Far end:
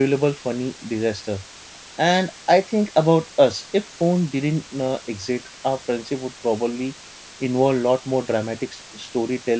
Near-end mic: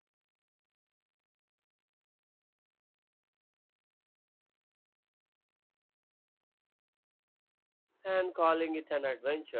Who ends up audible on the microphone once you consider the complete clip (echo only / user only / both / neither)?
user only